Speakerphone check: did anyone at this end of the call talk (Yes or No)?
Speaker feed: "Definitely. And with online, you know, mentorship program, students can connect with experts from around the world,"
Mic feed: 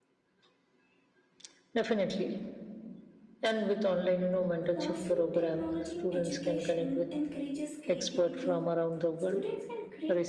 Yes